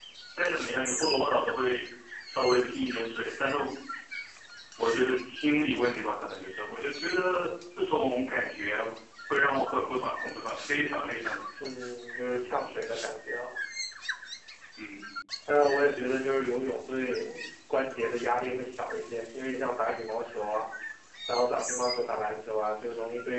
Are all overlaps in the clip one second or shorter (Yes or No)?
Yes